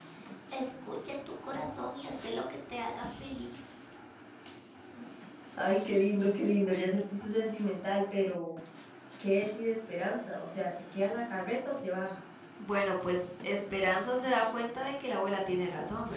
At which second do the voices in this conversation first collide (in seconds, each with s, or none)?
none